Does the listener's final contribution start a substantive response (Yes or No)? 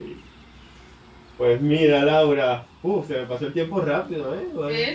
No